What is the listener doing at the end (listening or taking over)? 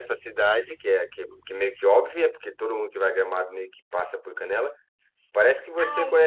listening